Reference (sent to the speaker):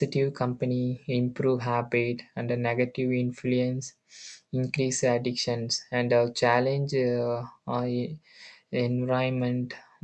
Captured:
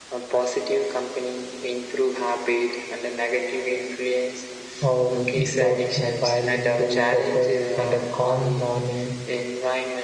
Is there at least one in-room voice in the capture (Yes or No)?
Yes